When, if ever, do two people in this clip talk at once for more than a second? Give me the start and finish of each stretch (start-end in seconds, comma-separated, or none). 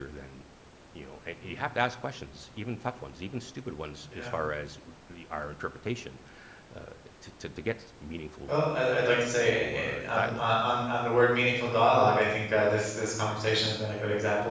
9.2-10.5